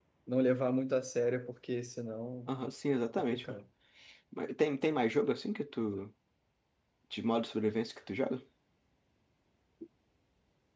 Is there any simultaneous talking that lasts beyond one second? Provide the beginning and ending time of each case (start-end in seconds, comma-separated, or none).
none